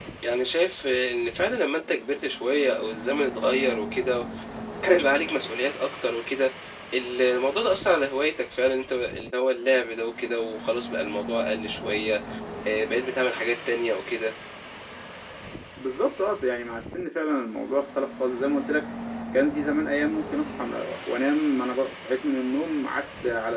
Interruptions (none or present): none